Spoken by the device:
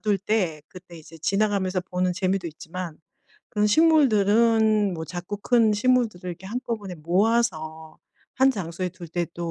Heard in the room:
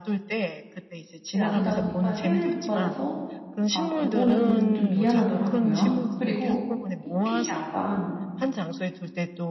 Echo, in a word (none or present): present